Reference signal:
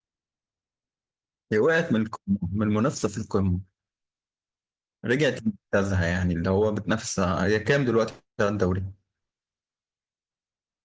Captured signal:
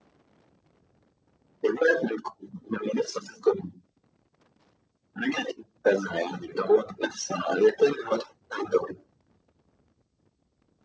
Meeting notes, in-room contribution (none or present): none